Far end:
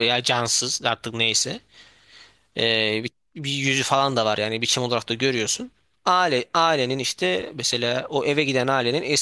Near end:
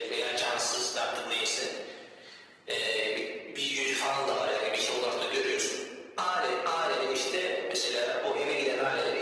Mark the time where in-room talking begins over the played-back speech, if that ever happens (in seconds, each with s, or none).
none